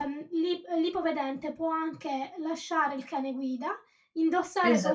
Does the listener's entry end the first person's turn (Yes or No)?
No